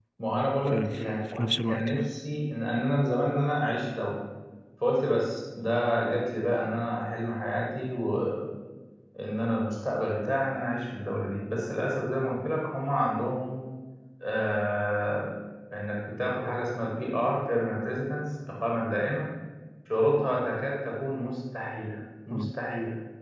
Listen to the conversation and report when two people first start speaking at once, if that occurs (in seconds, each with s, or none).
0.7 s